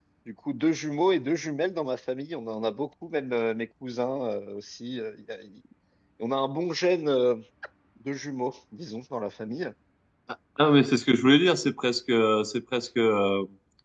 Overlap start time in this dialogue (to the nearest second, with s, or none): none